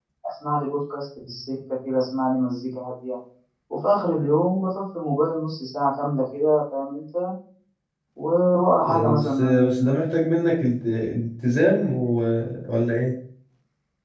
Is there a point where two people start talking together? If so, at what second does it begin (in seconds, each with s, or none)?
8.8 s